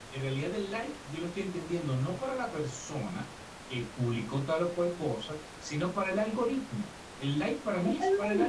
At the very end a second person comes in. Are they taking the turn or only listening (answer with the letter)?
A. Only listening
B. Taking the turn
B